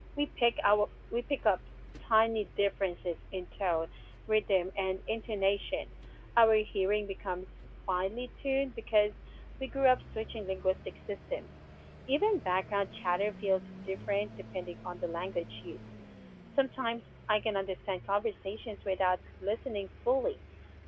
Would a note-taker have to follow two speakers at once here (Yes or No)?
No